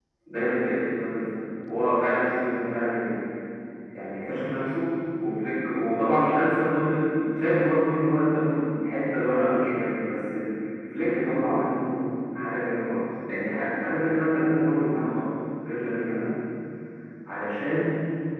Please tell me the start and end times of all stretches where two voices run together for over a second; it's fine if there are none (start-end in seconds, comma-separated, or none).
none